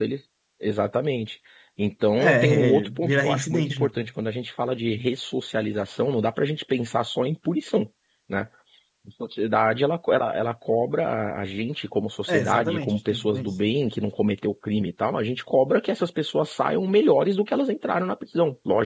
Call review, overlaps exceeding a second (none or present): present